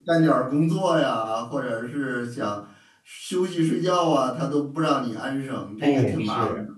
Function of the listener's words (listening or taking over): taking over